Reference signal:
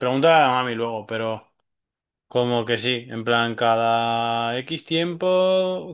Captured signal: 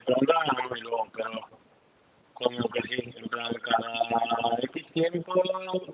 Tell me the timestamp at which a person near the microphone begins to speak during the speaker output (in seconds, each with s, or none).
none